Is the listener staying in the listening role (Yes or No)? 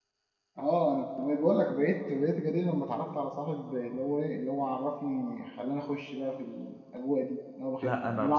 No